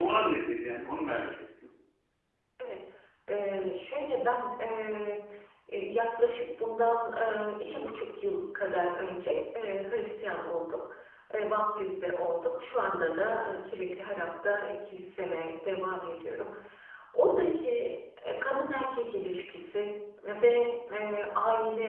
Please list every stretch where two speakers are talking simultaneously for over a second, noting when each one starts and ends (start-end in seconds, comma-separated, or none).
none